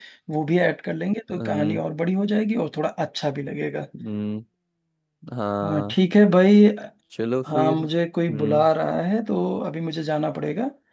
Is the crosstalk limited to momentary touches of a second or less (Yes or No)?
Yes